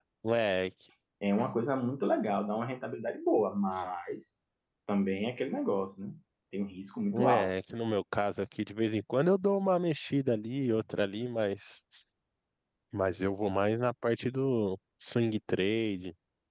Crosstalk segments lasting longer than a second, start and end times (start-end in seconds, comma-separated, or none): none